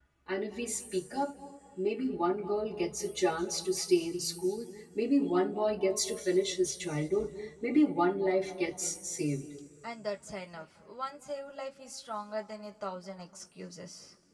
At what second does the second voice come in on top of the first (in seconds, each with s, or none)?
none